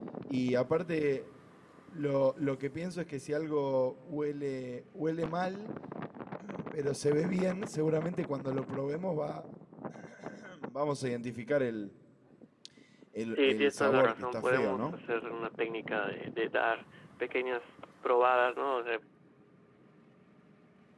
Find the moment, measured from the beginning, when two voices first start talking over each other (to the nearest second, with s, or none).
13 s